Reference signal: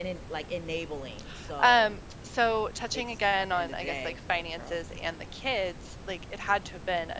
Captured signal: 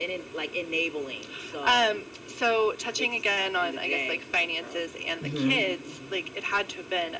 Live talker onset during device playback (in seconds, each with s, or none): 5.2 s